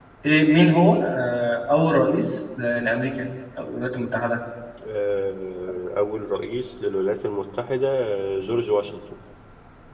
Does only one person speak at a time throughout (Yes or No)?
Yes